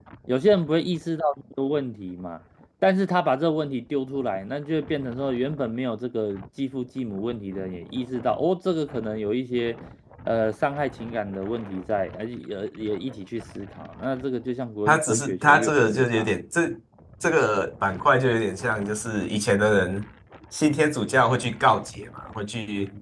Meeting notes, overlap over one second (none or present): present